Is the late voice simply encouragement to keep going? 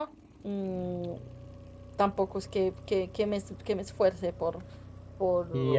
No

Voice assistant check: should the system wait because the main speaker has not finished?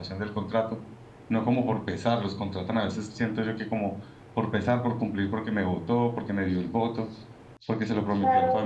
No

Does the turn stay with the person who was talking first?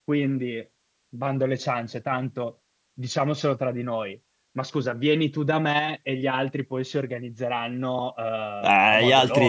No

